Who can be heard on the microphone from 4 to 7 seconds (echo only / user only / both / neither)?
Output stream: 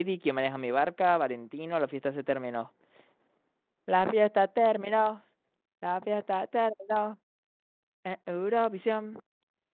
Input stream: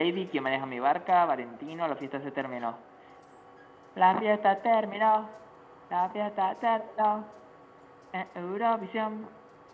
echo only